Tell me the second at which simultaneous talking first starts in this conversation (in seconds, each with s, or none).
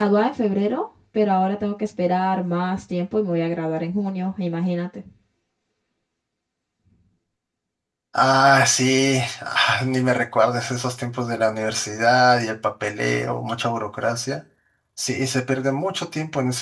none